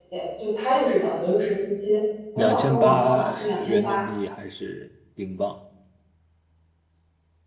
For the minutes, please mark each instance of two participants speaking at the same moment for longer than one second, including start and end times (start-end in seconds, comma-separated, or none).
2.4-4.0